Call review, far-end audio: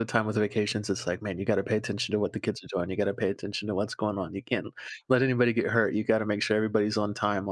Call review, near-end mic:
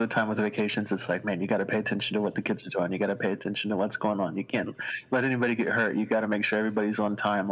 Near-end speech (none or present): none